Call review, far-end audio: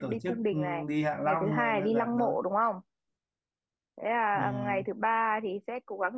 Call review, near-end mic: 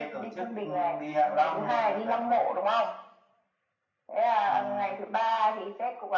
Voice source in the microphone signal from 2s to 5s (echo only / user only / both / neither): echo only